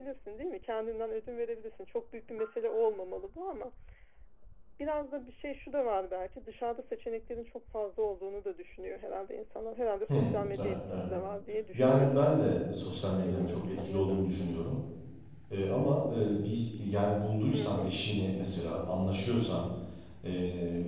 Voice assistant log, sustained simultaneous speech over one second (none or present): present